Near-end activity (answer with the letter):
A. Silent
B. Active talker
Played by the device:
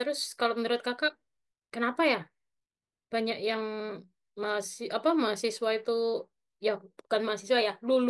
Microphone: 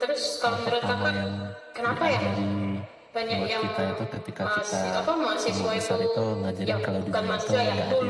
B